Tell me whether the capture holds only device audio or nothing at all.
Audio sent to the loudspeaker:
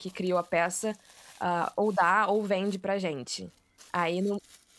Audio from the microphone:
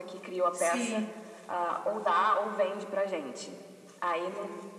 No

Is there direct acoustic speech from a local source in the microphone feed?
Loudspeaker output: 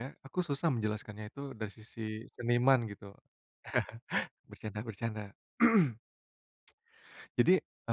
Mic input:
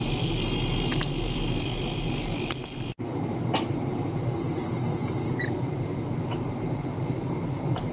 No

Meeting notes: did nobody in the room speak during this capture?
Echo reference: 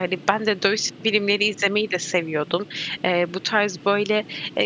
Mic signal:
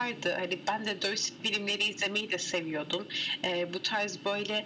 Yes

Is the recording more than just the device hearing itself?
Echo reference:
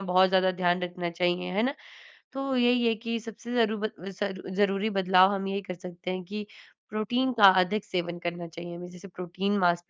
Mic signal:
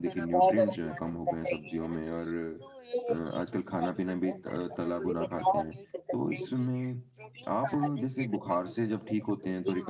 Yes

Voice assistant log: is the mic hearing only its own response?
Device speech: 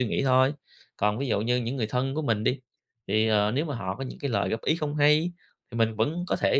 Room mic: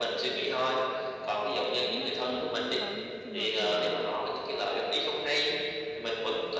No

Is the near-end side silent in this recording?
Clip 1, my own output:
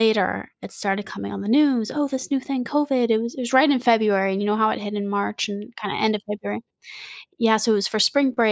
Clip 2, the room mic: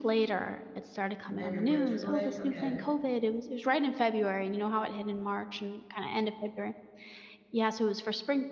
No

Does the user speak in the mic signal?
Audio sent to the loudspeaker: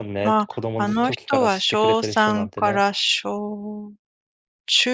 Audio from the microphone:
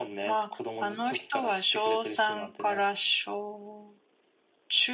No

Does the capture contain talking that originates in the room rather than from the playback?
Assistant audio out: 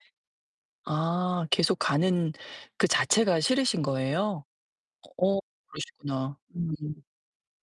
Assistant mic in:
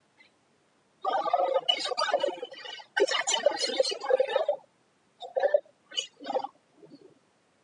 No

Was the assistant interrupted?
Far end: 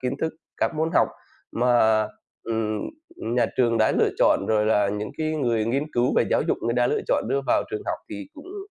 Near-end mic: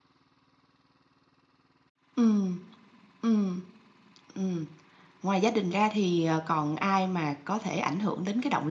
Yes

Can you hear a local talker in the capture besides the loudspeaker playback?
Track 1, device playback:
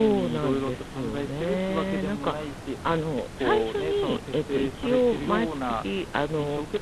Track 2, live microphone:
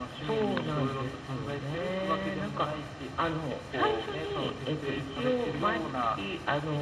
No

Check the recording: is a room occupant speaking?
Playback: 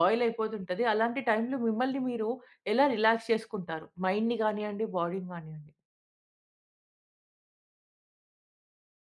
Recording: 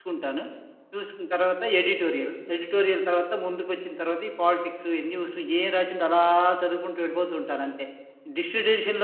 Yes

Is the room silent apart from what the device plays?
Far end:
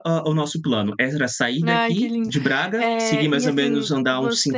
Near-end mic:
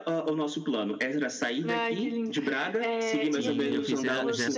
No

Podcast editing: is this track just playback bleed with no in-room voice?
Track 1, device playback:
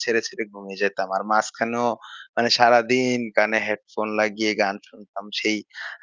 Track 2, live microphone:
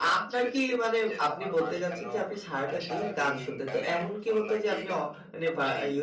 No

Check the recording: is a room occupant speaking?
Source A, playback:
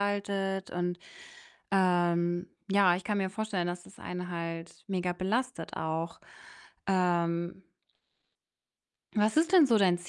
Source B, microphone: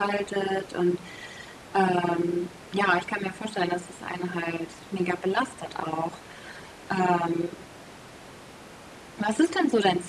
No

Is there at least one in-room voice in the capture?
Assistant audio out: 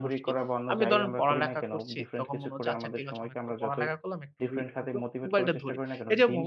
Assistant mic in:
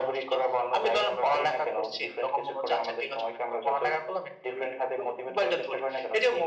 No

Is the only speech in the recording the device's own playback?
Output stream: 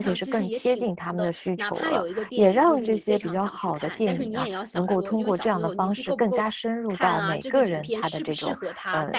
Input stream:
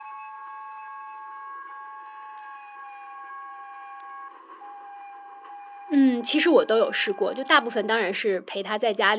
No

